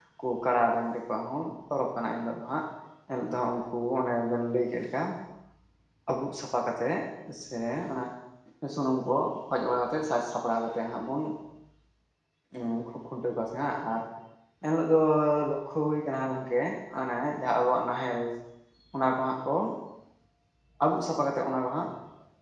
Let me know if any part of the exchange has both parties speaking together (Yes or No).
No